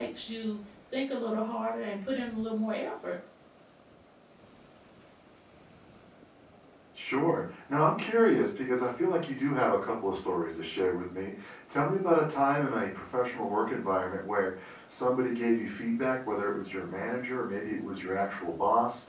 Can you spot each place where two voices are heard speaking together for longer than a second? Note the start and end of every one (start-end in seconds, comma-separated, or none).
none